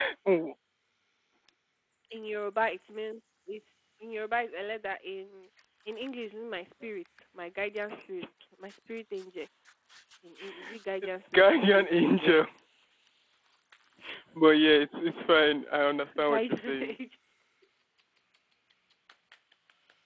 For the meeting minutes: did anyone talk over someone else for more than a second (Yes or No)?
Yes